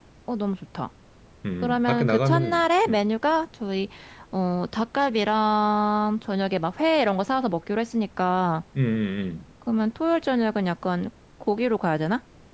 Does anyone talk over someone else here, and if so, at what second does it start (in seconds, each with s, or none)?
1.6 s